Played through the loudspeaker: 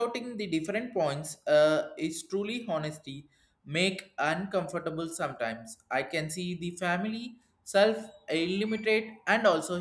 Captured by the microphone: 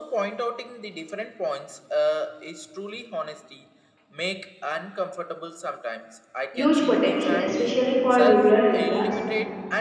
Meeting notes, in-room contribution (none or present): present